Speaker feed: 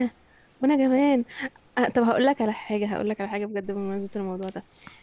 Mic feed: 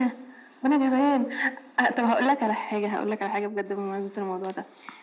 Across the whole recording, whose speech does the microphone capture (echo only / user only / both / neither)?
echo only